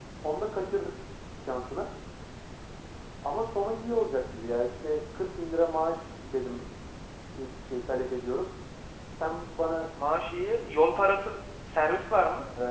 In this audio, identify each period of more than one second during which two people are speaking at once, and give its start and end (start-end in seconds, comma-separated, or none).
none